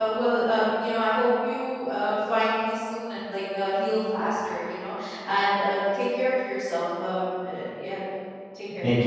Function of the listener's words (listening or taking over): taking over